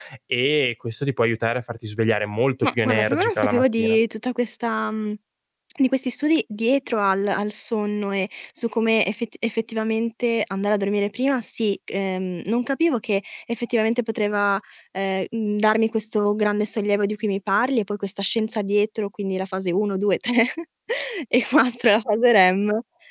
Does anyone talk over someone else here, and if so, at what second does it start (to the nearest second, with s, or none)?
3 s